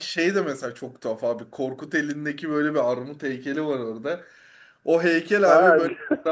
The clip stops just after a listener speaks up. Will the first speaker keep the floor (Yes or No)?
Yes